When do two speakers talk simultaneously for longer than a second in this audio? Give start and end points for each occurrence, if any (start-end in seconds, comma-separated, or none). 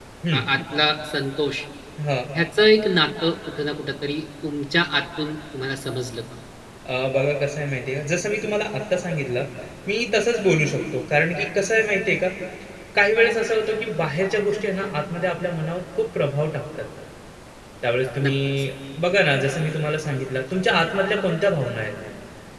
none